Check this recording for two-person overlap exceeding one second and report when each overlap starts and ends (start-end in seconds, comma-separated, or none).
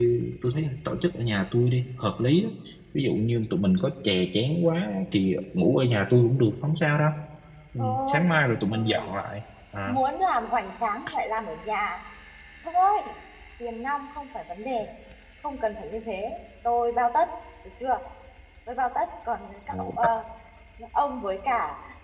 7.8-9.1